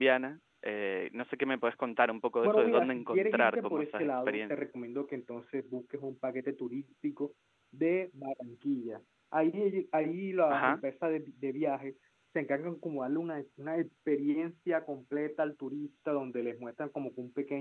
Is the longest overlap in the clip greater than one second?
Yes, from 2.4 s

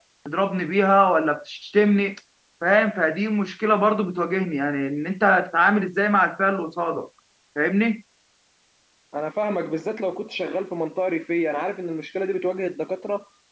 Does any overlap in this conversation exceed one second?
No

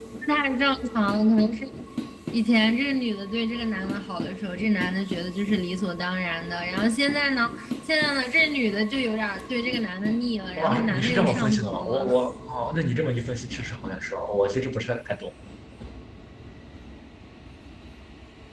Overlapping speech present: Yes, from 10.6 s

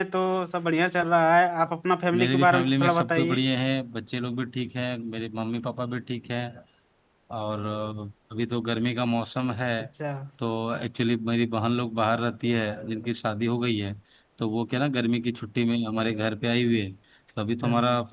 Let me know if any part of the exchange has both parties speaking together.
Yes, from 2.1 s

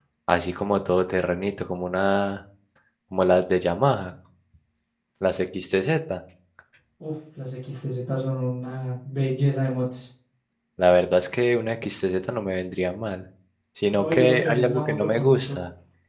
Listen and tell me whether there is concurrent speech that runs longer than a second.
Yes, from 13.9 s

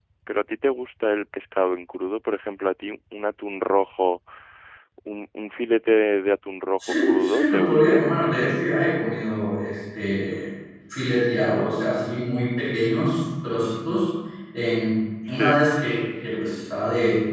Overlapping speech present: Yes, from 6.8 s

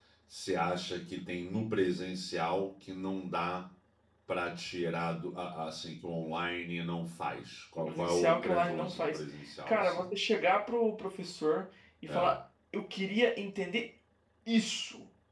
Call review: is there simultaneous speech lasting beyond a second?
Yes, from 7.8 s

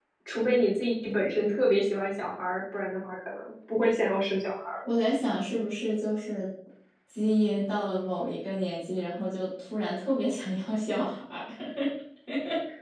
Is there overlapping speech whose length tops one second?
No

